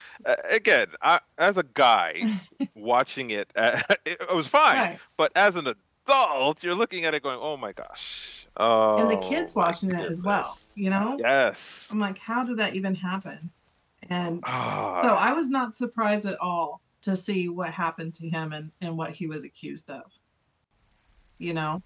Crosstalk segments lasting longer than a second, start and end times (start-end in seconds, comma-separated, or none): 9.0-10.4